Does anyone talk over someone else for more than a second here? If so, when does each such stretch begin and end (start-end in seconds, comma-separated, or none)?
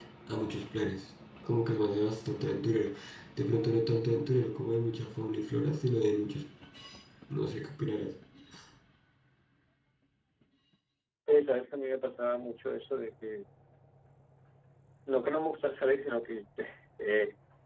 none